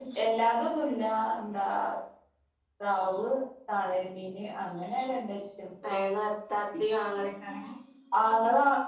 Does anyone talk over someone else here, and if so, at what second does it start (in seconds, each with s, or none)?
none